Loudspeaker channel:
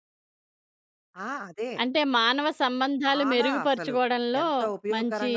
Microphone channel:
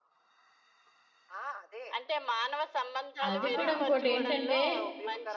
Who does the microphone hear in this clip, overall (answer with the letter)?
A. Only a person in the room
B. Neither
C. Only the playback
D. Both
D